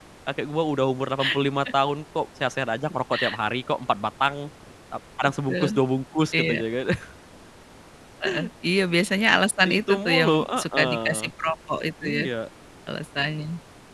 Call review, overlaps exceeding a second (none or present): present